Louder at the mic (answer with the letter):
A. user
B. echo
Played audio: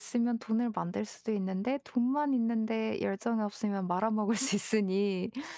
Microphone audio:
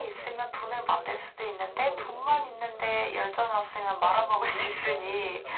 B